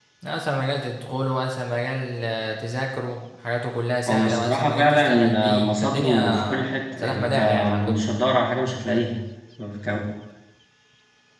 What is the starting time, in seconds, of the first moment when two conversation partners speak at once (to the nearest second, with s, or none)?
4 s